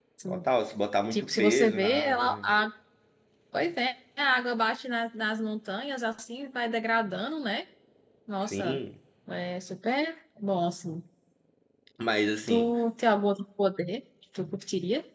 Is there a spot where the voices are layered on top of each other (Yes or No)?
Yes